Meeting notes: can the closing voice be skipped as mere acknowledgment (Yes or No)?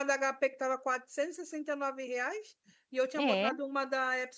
Yes